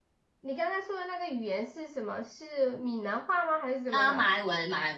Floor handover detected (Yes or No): Yes